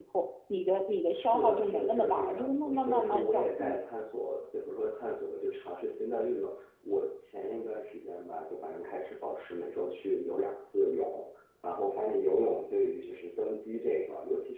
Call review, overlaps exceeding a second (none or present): present